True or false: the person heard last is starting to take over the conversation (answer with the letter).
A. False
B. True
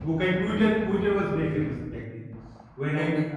A